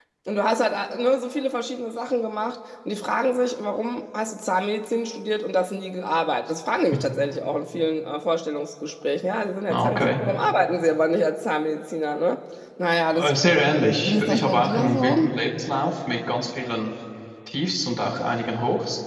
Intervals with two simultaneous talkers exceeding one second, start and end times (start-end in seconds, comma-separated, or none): 14.1-15.3